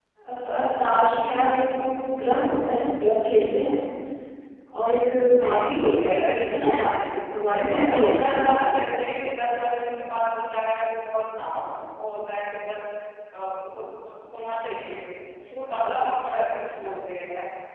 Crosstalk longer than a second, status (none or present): present